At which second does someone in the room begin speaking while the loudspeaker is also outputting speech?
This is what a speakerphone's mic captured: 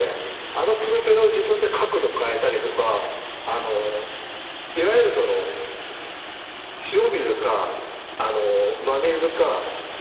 none

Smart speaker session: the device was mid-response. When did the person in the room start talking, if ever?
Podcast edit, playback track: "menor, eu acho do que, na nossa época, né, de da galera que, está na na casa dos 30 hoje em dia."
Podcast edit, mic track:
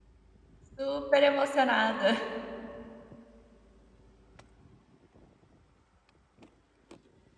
0.8 s

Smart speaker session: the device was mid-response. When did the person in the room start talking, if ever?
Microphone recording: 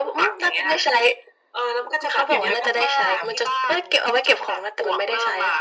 2.3 s

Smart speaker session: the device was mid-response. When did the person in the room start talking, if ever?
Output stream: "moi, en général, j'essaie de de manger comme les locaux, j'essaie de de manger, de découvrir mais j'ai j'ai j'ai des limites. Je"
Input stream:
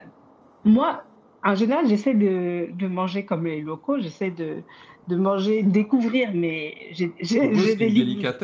7.4 s

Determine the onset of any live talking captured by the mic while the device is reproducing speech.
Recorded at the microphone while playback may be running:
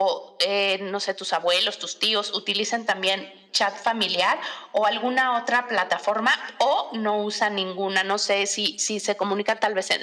none

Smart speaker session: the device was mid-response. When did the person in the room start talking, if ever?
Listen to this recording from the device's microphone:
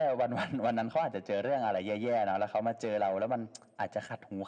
none

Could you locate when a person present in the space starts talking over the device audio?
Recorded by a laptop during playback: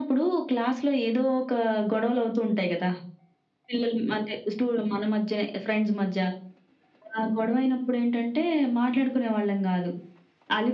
none

